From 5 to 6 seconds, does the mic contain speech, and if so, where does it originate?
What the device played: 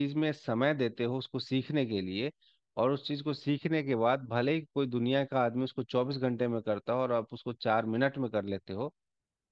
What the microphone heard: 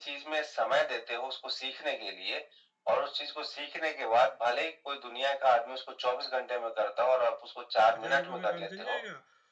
echo only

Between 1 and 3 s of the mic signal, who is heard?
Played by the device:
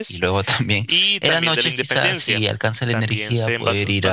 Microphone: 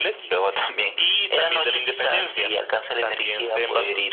echo only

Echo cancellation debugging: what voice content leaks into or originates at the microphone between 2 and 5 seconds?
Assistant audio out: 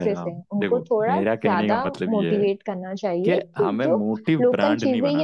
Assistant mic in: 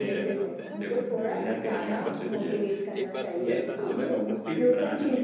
both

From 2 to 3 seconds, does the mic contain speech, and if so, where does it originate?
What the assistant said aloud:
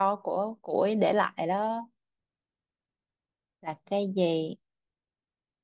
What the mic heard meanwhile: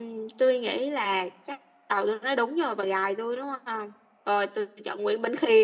user only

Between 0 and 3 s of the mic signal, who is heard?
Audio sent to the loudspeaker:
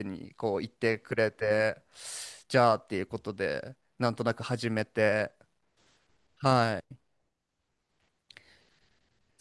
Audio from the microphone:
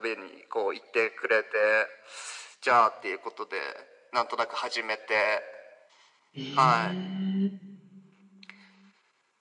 echo only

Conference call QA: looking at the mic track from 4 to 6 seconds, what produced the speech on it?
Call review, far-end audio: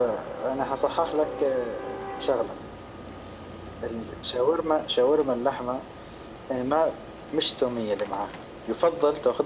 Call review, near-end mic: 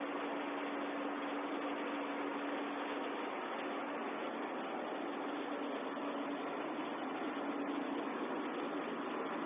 neither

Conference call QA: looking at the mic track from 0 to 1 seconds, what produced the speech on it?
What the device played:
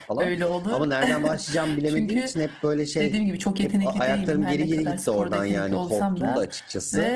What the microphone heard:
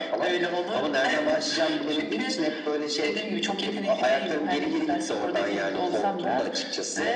echo only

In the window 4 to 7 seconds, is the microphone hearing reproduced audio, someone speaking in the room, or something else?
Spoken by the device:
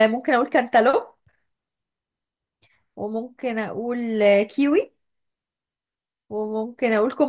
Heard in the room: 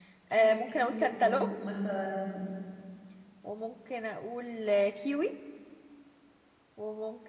echo only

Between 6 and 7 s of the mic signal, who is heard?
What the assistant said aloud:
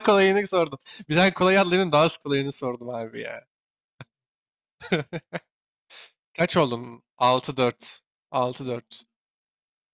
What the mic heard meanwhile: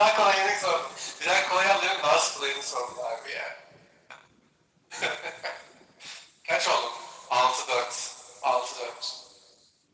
echo only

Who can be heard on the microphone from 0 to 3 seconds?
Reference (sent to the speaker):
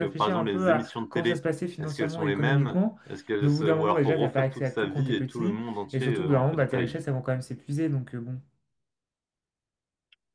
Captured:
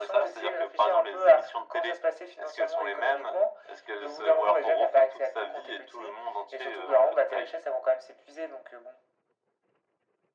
echo only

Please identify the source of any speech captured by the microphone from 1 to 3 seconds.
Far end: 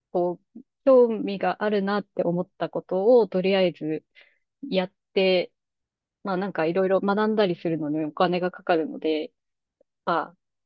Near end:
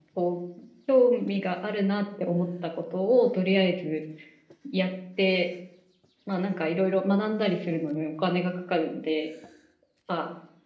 echo only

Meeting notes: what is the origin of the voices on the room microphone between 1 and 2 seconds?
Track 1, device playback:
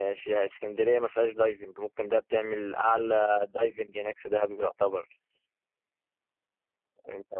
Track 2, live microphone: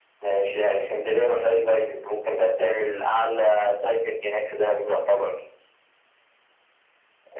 echo only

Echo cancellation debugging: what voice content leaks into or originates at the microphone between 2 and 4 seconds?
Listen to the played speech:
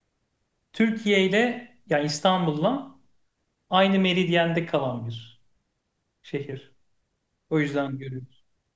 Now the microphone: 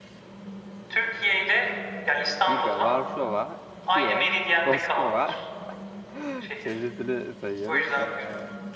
both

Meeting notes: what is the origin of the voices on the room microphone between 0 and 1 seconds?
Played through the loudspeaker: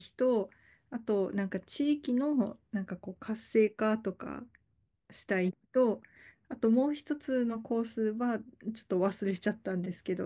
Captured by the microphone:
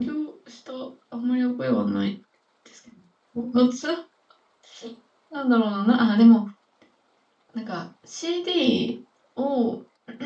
user only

